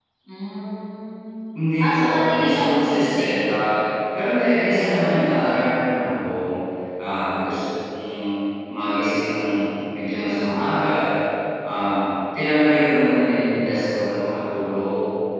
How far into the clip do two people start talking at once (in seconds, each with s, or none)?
1.8 s